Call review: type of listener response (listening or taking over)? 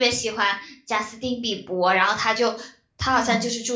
listening